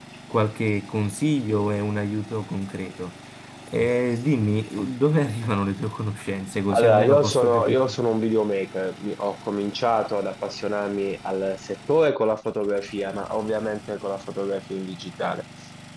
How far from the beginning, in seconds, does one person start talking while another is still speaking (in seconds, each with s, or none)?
6.7 s